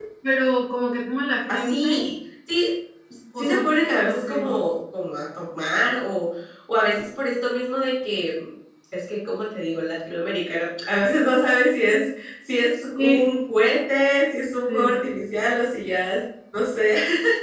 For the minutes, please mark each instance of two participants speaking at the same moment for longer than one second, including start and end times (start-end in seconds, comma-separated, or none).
none